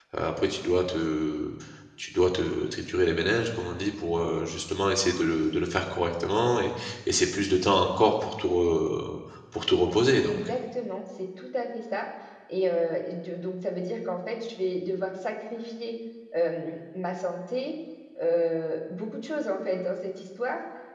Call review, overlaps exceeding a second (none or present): none